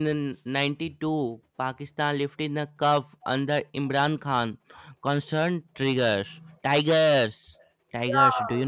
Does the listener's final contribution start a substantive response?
Yes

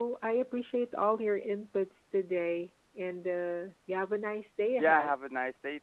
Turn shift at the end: Yes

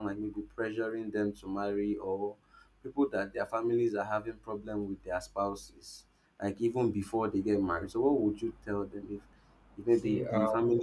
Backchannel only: Yes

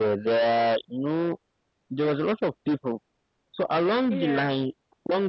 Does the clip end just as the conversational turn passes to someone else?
No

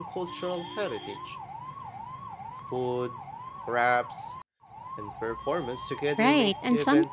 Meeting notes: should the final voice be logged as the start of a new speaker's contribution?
Yes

